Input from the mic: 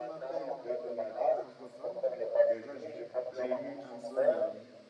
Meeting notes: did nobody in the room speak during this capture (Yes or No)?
No